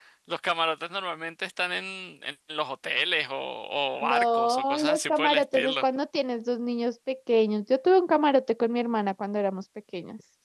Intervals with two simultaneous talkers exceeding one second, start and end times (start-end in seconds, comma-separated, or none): 4.0-5.8